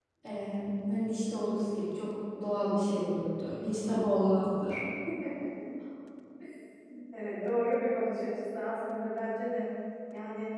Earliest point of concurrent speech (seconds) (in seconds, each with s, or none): none